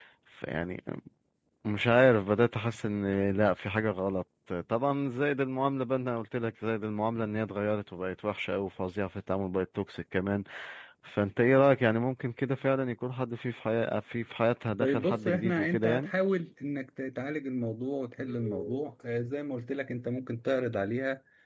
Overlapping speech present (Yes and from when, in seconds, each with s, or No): Yes, from 14.8 s